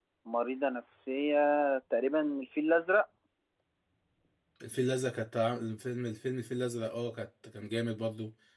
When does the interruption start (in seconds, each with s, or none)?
none